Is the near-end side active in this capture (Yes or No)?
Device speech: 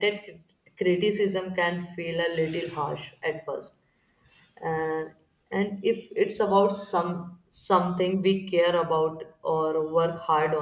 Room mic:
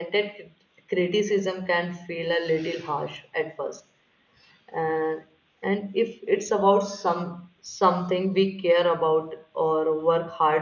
No